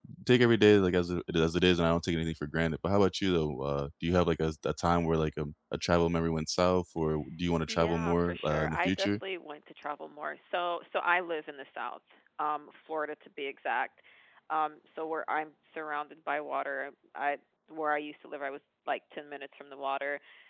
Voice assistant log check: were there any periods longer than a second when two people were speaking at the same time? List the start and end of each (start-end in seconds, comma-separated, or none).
7.7-9.1